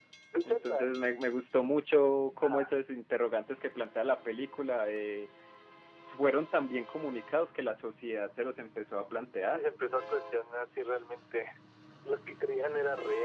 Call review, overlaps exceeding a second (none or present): none